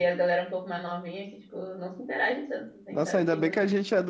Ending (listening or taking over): taking over